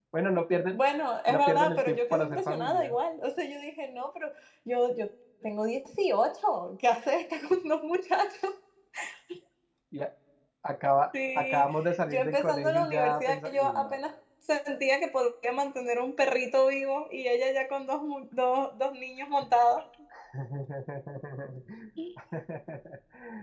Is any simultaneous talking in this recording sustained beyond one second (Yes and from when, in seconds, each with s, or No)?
Yes, from 1.3 s